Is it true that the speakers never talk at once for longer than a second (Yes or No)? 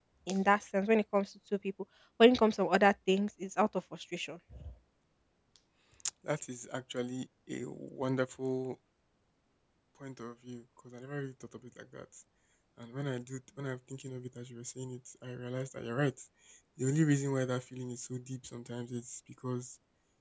Yes